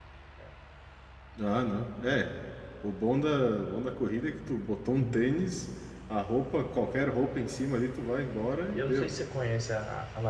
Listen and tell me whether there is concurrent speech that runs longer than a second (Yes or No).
No